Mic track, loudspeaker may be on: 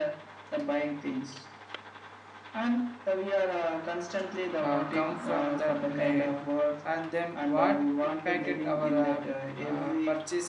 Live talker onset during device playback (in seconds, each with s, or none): 4.6 s